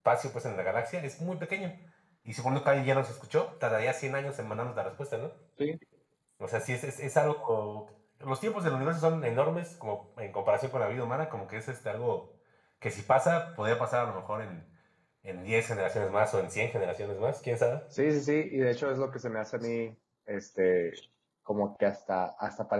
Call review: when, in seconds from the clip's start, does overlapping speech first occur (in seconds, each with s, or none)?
none